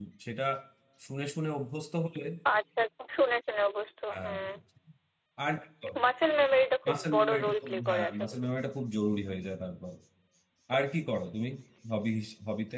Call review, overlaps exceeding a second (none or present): present